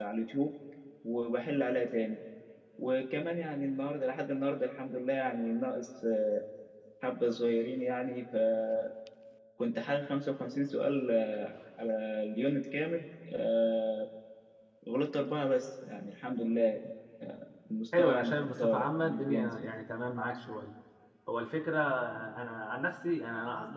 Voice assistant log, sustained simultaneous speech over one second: present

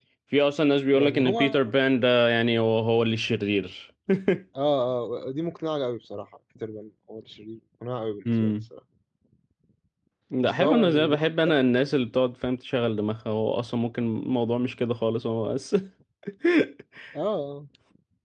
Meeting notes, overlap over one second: present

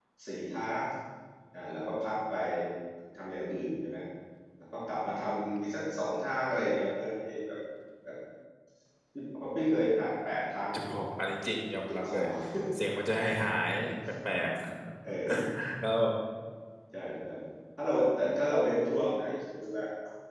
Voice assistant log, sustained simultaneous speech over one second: none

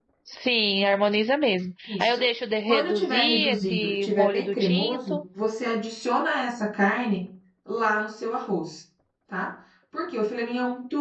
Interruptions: present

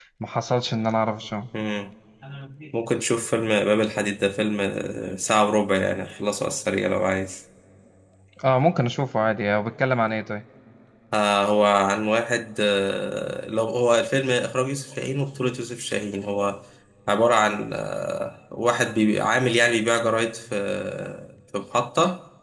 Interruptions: none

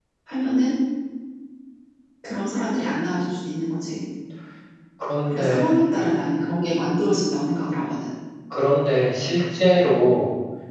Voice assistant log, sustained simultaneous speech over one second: none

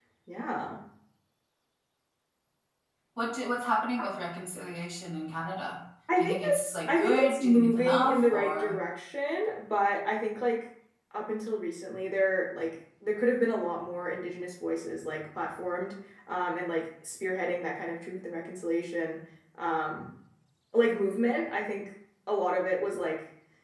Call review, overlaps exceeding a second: present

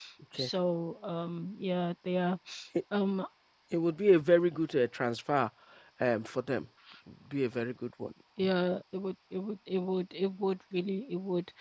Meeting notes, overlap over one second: none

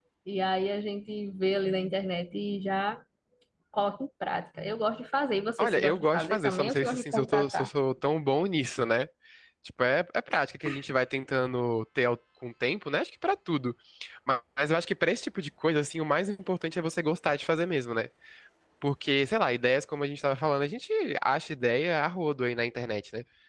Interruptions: present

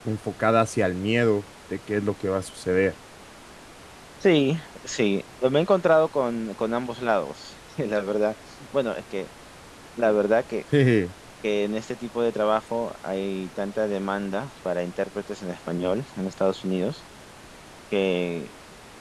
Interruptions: none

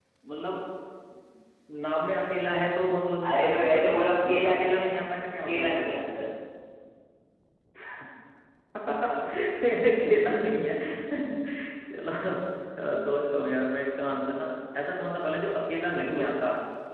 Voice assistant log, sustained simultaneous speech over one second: present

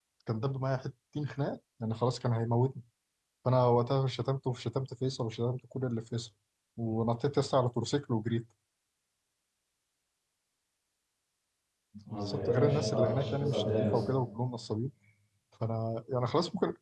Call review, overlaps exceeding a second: present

